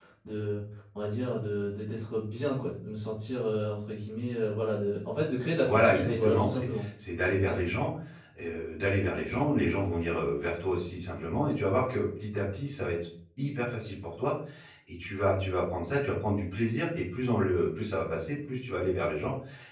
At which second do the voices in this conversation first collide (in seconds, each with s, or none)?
5.6 s